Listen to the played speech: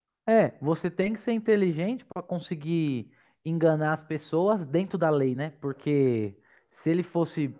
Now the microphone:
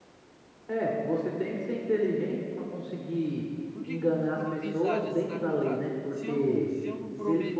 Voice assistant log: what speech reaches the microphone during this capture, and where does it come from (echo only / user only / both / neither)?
both